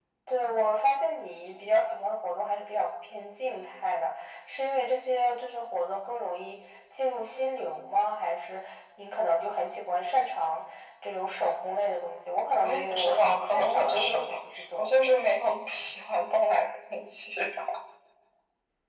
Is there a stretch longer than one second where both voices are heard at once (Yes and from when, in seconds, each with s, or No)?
Yes, from 12.6 s